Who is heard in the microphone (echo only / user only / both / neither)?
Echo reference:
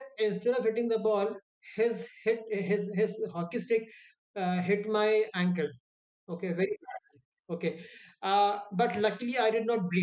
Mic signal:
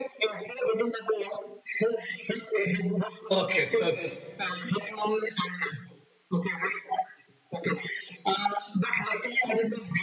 both